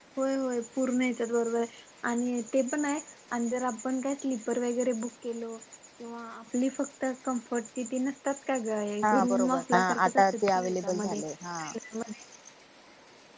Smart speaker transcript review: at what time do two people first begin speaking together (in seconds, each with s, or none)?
9.0 s